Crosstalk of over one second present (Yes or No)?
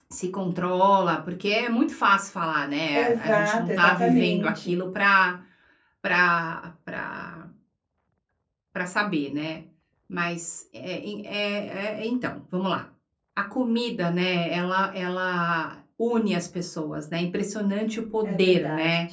Yes